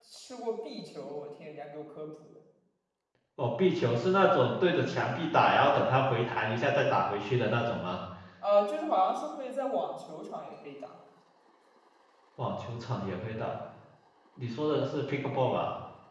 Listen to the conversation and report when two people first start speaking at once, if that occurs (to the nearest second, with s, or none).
none